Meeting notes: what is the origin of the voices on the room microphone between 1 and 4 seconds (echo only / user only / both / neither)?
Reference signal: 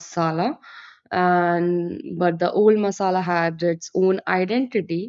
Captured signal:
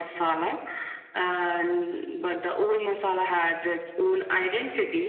echo only